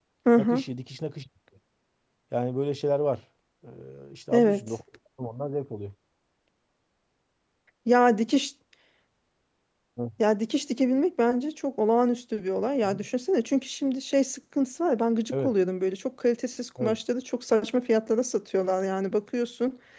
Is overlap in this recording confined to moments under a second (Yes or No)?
Yes